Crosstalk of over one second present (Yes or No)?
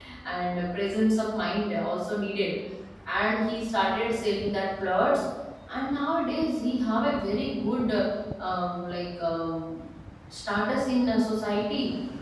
No